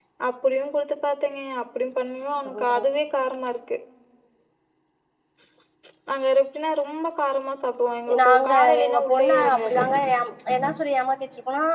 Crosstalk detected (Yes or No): Yes